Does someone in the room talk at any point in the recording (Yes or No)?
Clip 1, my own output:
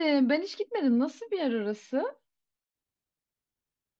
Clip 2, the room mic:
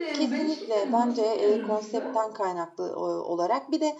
Yes